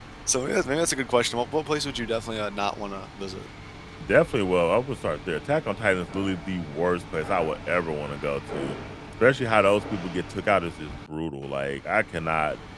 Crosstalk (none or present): none